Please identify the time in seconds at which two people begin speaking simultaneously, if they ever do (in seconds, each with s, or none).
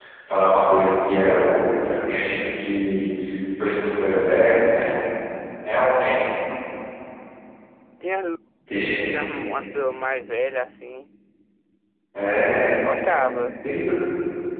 none